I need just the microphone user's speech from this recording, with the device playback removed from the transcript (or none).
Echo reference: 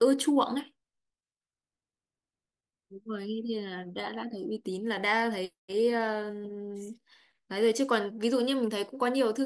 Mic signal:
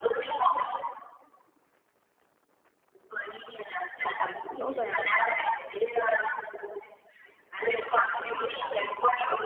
sản phẩm rõ ràng,